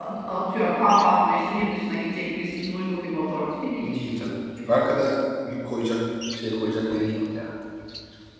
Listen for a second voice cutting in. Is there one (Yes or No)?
No